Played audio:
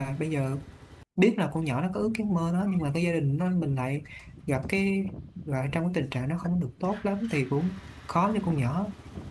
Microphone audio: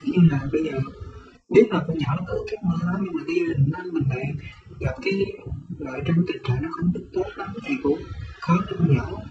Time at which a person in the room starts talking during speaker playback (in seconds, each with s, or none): none